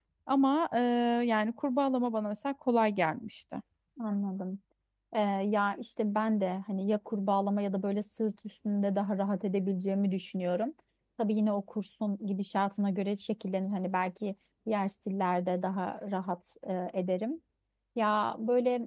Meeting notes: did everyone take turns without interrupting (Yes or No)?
Yes